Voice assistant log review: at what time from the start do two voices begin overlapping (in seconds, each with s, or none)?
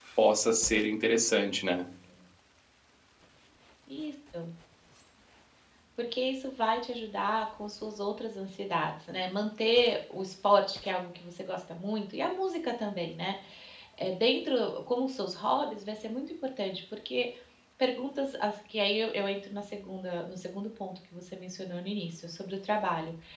none